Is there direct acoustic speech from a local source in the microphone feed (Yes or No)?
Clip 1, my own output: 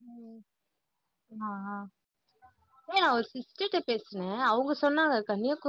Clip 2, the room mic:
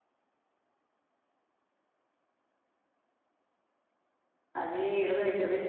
Yes